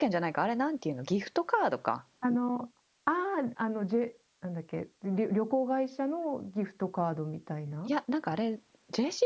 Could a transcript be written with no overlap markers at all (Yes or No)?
Yes